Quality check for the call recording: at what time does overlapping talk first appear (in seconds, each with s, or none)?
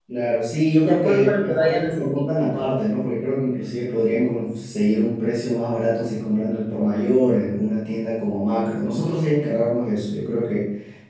0.8 s